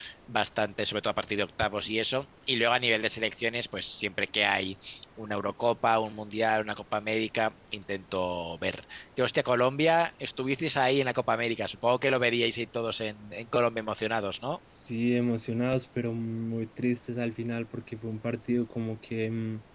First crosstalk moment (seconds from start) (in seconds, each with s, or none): none